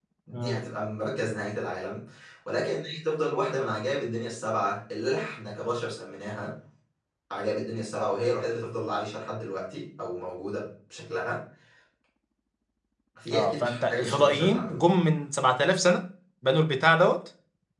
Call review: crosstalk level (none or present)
present